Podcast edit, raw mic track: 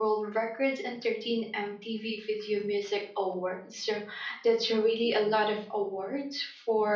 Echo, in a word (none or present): none